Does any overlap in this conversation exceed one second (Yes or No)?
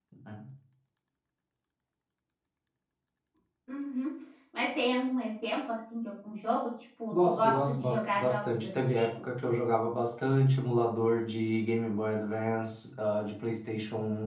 Yes